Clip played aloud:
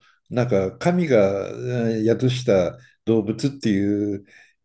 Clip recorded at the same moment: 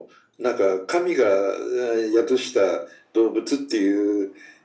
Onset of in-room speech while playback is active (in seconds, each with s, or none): none